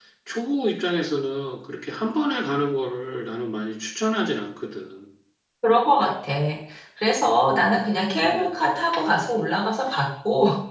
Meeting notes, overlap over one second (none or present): none